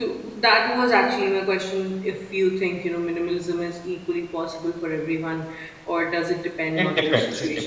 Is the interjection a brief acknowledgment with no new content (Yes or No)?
No